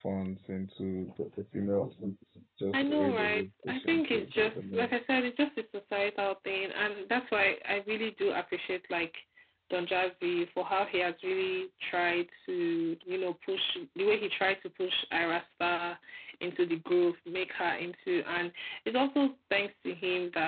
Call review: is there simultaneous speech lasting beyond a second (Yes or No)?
Yes